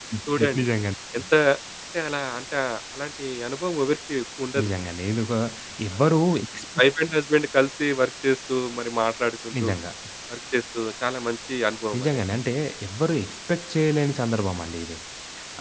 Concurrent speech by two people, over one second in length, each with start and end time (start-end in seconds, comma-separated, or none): none